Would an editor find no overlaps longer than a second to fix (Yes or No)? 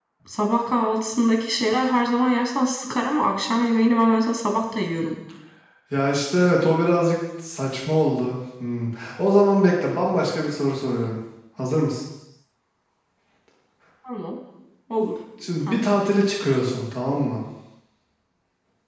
Yes